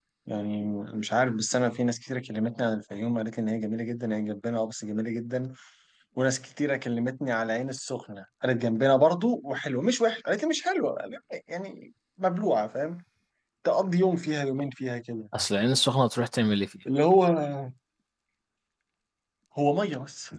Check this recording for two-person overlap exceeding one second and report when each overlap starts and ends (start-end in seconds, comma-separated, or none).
none